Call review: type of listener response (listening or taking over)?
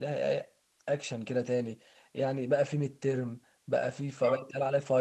listening